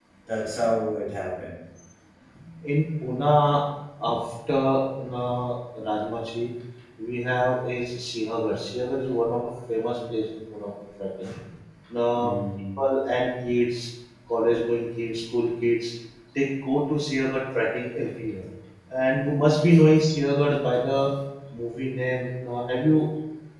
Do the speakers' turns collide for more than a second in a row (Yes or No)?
No